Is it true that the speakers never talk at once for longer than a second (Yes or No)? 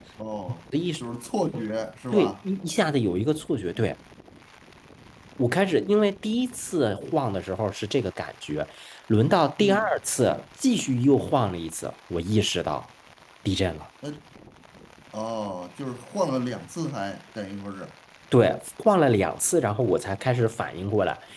Yes